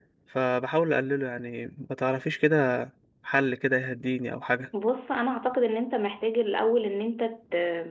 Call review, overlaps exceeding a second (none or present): none